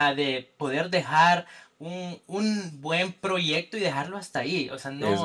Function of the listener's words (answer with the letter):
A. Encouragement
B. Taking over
A